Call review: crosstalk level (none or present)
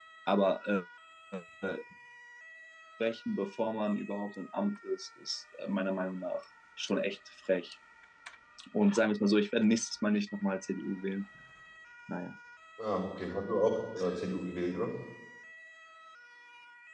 none